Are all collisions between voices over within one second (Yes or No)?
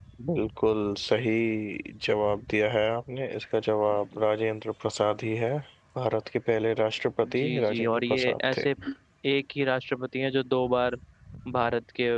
No